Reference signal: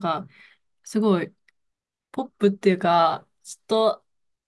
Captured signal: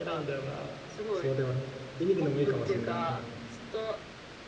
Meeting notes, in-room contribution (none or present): present